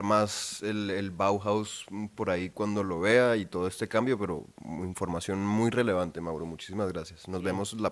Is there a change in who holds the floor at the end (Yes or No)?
Yes